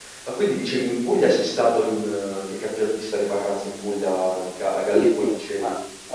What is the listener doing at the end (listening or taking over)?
taking over